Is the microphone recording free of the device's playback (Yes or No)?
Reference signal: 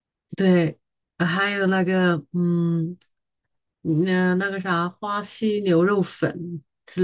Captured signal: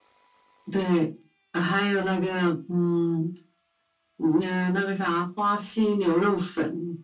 No